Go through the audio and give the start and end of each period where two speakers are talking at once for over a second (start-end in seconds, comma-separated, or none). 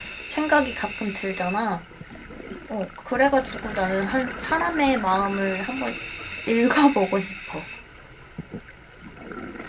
none